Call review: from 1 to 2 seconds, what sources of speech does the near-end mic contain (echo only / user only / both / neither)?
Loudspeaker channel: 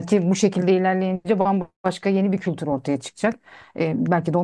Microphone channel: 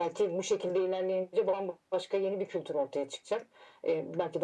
echo only